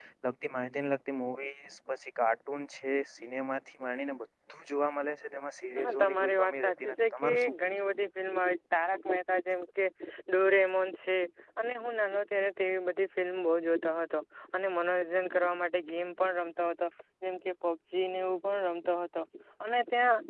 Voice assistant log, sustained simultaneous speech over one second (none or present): present